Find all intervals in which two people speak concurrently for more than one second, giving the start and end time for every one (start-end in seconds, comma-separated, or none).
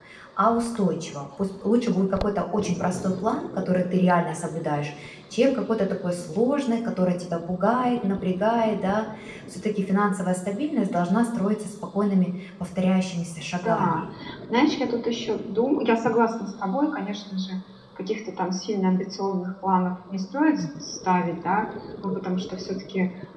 none